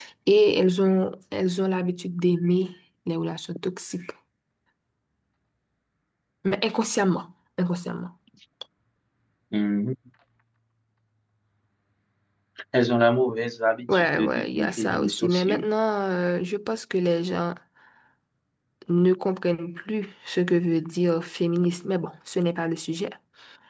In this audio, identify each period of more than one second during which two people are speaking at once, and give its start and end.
13.9-15.7

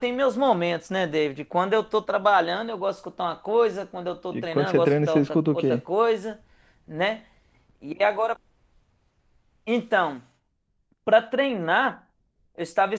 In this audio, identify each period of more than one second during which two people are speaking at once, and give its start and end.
4.3-5.8

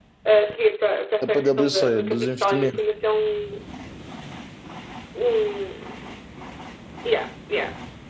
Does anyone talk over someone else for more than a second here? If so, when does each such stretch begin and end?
1.2-2.8

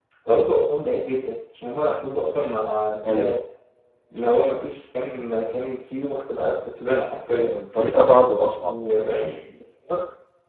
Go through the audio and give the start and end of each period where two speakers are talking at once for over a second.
none

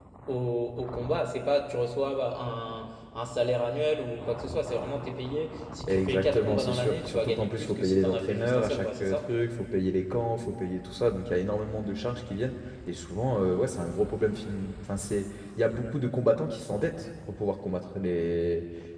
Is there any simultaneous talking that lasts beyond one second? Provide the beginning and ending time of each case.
5.9-9.3

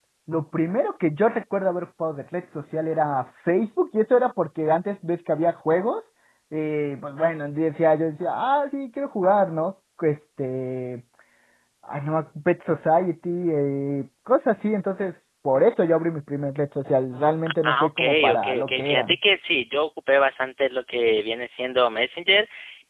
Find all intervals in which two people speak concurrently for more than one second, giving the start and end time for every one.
17.6-19.2

